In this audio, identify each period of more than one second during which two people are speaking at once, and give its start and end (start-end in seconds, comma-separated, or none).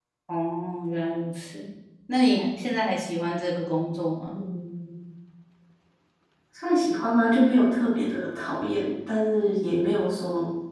none